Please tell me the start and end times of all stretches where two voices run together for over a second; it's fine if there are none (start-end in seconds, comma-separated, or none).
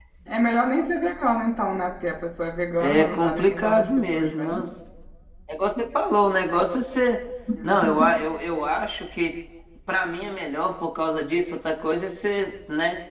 2.8-4.6